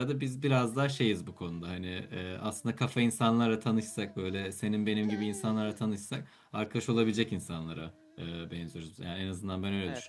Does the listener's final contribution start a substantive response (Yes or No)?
No